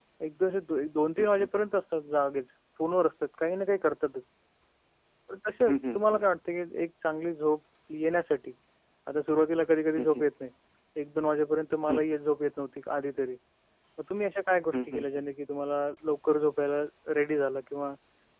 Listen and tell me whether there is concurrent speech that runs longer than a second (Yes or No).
No